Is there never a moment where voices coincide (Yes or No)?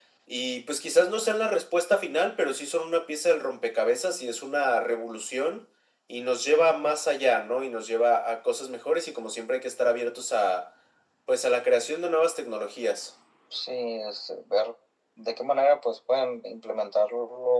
Yes